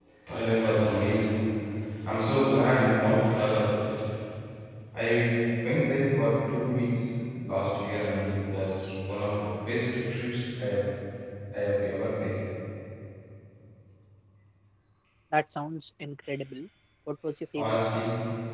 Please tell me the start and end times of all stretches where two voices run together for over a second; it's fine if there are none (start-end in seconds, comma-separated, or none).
none